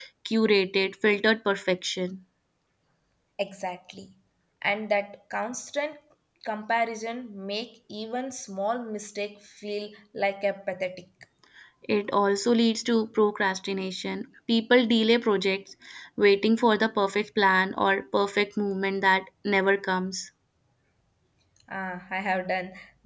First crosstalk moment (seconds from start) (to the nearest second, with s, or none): none